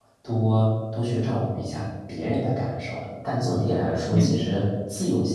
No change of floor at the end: Yes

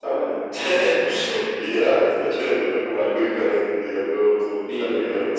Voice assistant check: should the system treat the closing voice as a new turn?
Yes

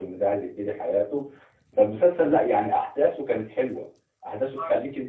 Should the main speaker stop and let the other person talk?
No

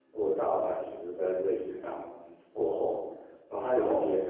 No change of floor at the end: Yes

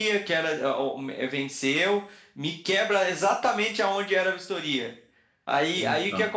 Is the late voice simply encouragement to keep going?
Yes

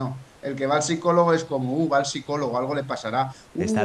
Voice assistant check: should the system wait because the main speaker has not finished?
Yes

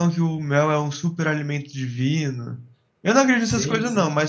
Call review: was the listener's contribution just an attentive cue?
Yes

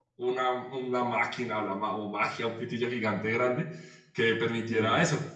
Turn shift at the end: No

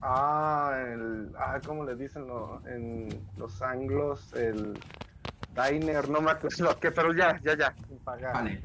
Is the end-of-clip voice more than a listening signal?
Yes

